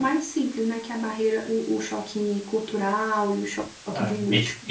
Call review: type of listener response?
taking over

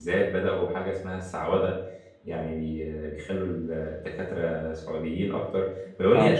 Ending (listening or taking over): listening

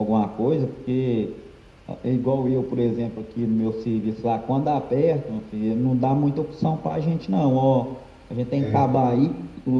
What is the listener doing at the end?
listening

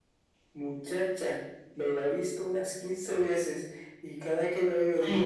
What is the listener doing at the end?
listening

